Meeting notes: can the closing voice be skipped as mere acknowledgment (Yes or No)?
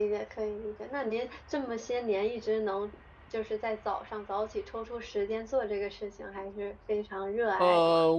No